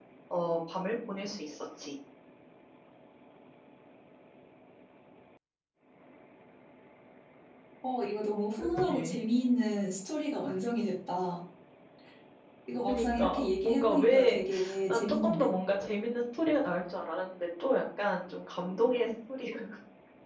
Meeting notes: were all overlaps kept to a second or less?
No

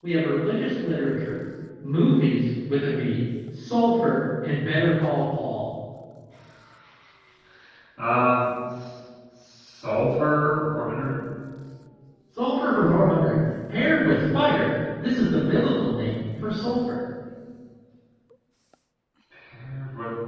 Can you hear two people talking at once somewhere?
No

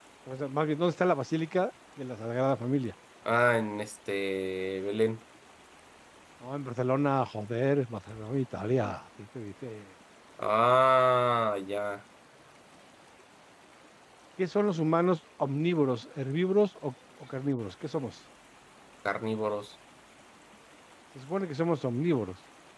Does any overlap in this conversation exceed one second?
No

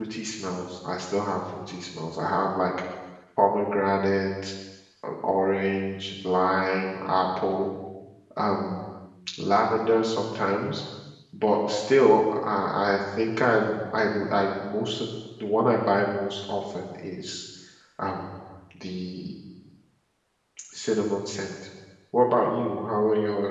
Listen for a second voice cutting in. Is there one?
No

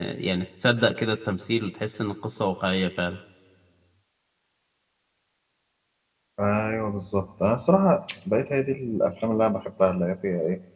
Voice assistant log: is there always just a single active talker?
Yes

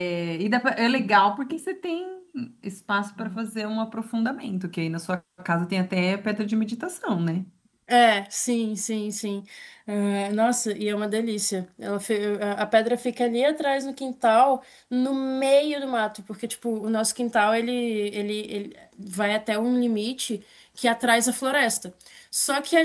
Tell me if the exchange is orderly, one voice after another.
Yes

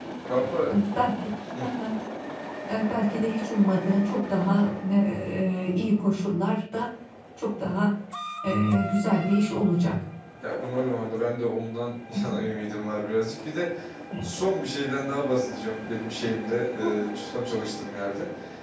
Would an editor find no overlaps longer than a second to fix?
Yes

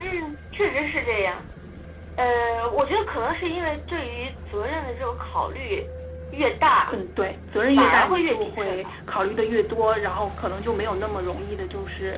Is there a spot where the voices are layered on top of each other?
Yes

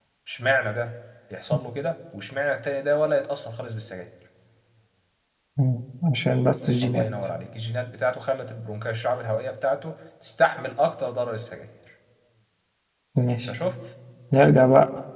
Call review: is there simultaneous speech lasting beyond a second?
No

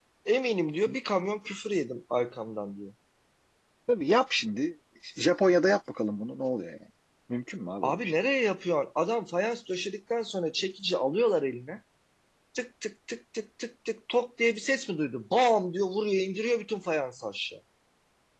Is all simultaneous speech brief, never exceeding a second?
Yes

